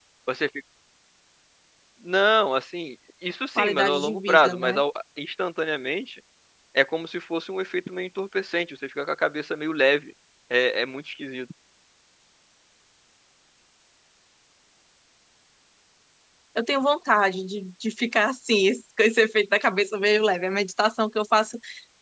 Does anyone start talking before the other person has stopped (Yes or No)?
Yes